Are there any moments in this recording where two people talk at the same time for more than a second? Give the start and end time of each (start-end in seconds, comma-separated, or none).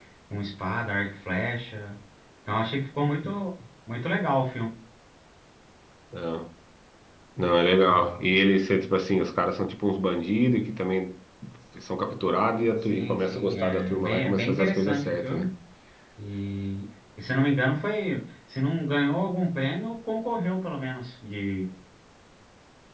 12.8-15.5